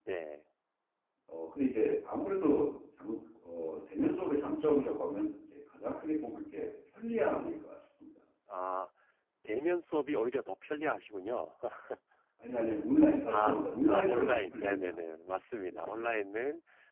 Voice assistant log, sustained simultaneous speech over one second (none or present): present